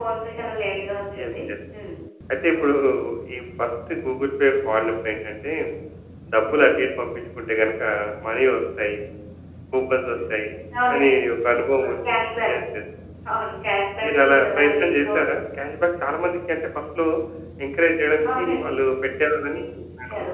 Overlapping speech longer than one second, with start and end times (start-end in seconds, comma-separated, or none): 14.0-15.4